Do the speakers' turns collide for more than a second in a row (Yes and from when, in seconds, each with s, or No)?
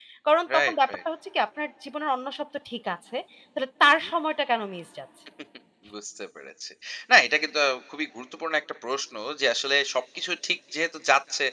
No